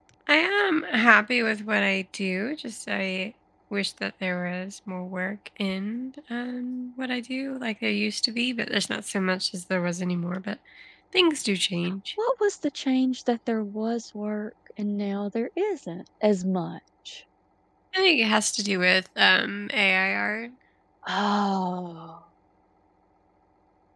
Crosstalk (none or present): none